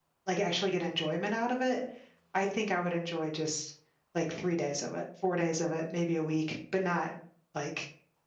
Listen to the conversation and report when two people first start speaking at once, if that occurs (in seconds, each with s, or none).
none